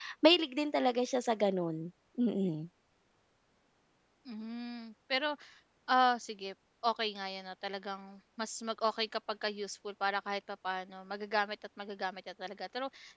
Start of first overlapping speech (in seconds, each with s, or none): none